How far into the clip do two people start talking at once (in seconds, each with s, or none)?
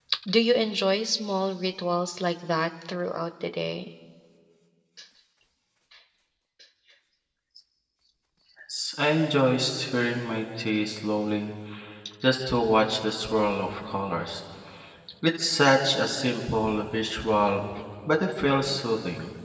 none